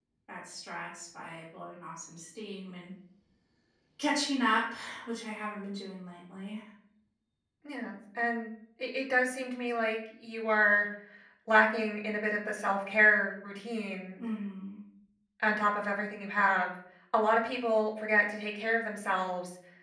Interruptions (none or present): none